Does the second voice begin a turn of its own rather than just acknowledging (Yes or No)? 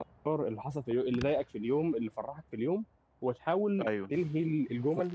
No